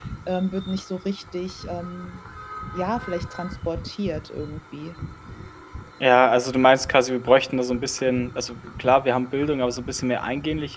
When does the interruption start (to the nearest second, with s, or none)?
none